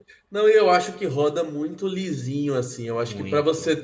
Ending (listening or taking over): listening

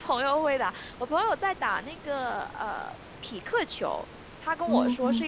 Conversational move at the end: listening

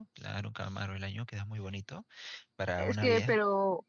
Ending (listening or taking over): taking over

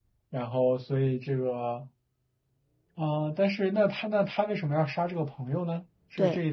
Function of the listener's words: taking over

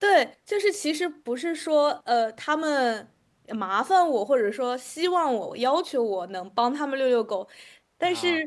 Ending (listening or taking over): listening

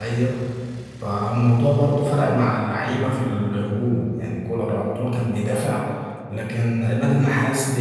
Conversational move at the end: listening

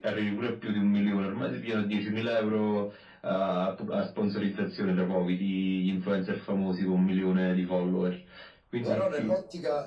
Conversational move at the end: taking over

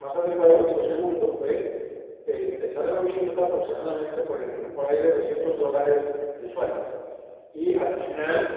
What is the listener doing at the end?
listening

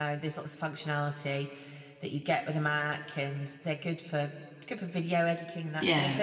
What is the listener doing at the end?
listening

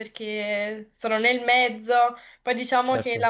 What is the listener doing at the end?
listening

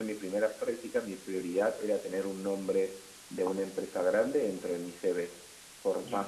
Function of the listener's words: listening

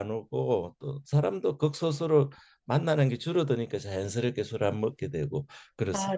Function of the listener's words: taking over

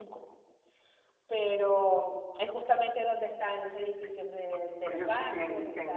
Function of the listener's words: taking over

